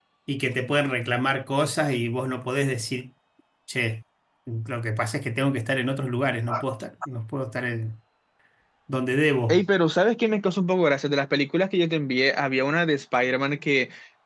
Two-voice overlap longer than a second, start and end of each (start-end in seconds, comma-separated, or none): none